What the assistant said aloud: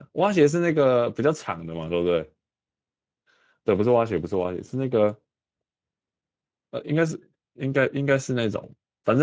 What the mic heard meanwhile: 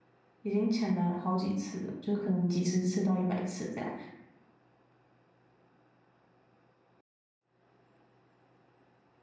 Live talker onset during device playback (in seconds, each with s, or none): 0.4 s